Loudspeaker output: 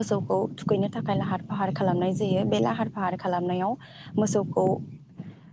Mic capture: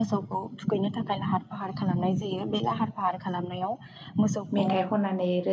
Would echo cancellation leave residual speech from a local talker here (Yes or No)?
Yes